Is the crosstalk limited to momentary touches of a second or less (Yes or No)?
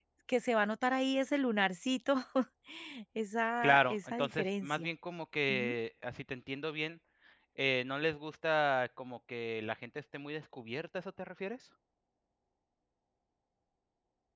No